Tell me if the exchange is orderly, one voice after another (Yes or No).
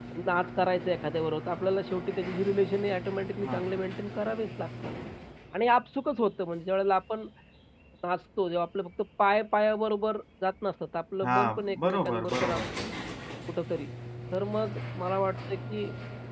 No